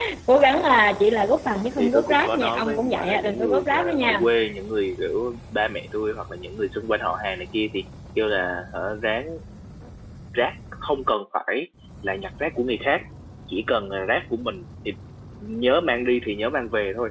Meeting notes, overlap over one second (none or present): present